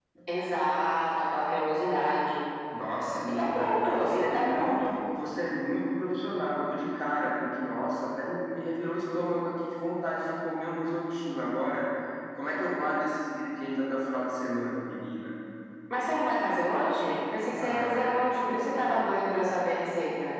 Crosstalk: present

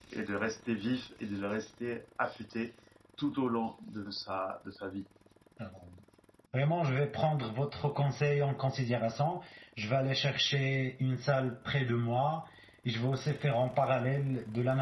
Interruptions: none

